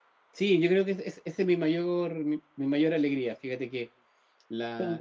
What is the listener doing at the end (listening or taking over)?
listening